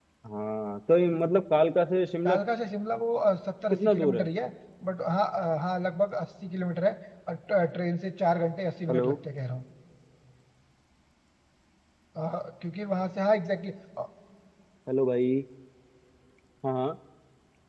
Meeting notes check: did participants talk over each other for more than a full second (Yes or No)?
No